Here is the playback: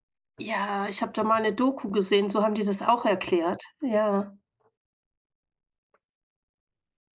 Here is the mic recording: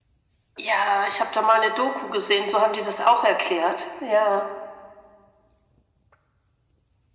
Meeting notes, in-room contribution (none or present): none